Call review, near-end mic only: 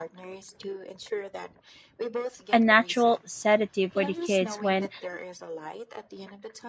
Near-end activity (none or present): present